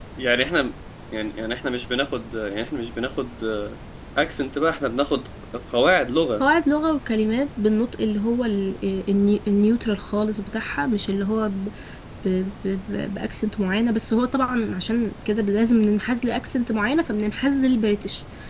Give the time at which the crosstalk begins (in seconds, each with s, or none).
none